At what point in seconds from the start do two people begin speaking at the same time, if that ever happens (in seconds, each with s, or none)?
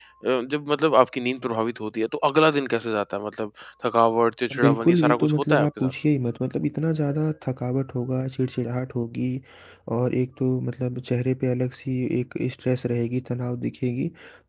4.5 s